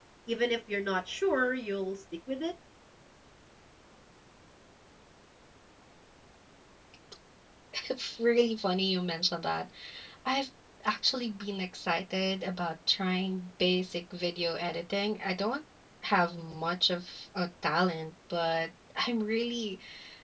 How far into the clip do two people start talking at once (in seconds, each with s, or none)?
none